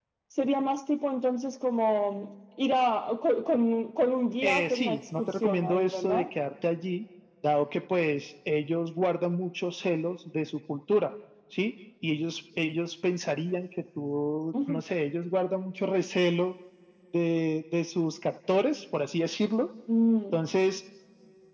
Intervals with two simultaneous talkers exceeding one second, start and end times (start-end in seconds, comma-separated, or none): 4.4-6.3